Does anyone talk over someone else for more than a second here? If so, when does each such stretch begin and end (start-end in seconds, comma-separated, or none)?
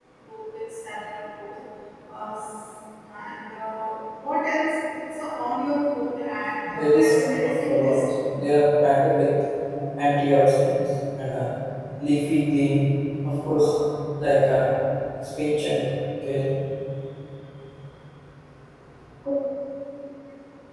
6.6-8.0